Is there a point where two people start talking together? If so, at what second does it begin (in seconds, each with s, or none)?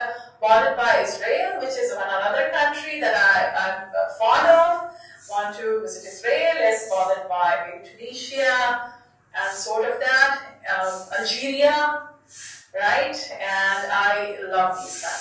none